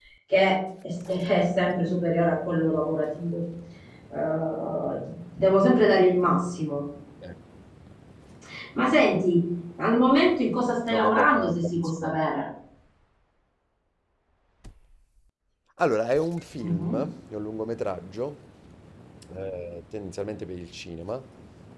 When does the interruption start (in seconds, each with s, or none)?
10.9 s